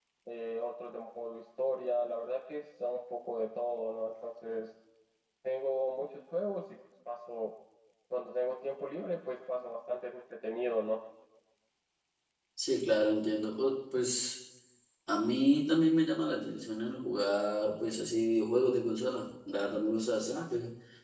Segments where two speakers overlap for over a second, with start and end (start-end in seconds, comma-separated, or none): none